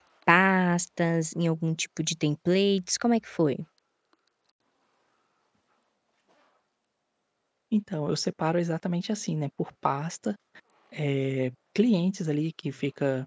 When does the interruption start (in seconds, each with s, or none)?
none